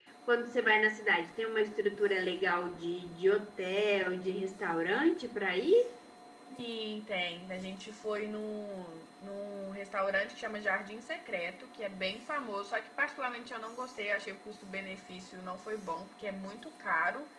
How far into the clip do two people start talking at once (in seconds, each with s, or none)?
none